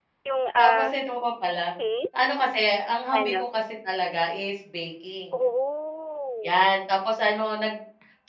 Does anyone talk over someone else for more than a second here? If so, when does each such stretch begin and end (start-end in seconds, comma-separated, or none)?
none